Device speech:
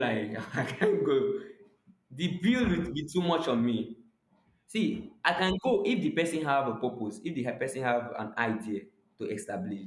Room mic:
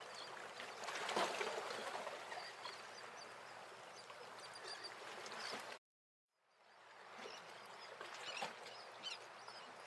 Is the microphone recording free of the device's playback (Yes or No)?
Yes